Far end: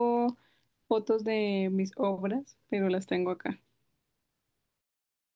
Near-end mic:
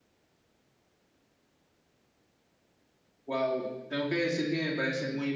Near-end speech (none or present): present